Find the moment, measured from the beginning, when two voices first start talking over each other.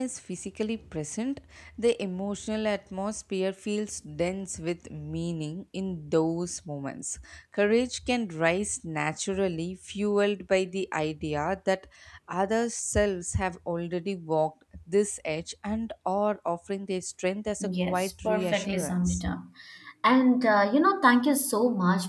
18 s

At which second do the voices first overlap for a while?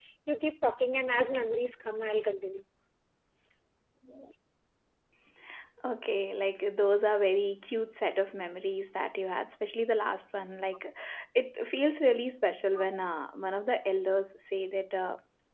none

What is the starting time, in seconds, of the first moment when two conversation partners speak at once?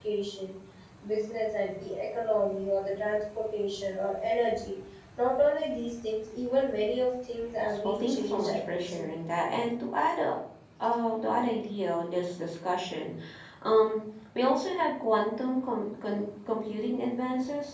8 s

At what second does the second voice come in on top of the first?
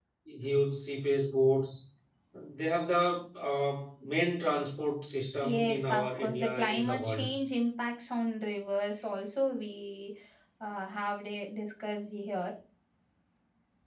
5 s

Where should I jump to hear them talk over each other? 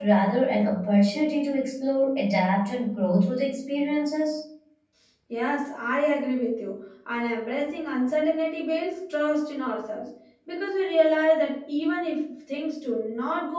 none

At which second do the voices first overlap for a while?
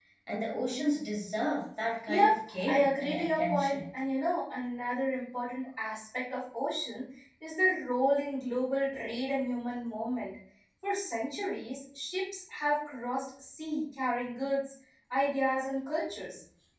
2 s

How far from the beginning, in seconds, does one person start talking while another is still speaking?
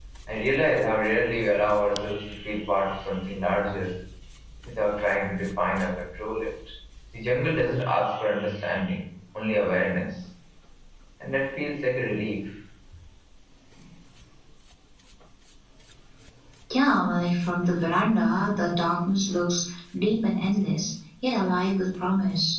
none

